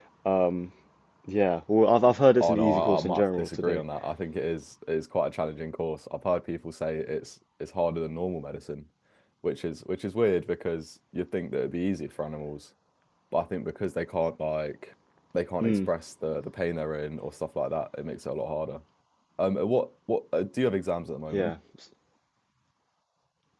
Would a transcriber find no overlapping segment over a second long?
No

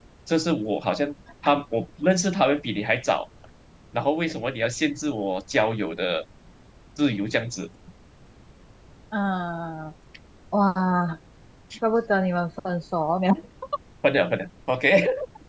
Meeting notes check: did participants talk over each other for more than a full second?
No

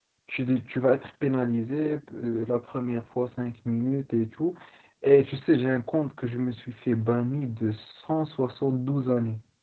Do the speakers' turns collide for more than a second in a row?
No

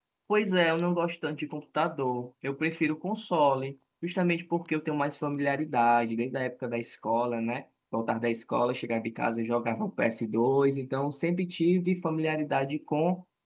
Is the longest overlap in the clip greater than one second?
No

